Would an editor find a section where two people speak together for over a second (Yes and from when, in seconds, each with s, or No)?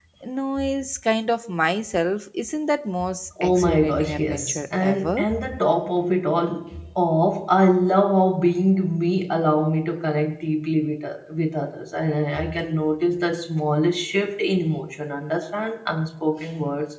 Yes, from 3.4 s